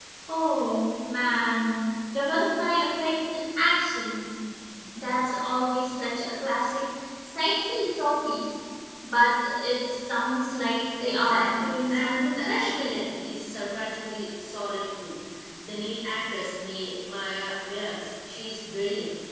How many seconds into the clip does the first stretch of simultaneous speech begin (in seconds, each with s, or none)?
11.0 s